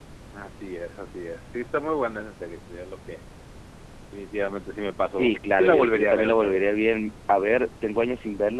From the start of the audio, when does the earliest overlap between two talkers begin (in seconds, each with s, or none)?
5.1 s